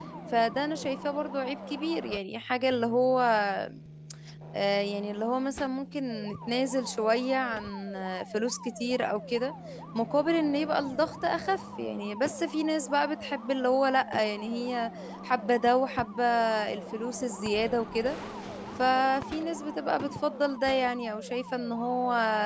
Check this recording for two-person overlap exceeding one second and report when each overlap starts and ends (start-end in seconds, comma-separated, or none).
none